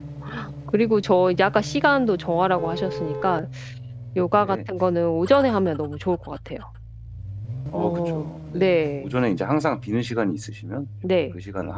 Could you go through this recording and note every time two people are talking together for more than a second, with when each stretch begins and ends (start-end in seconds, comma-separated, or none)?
7.7-9.1